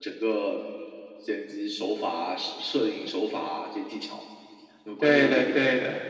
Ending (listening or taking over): taking over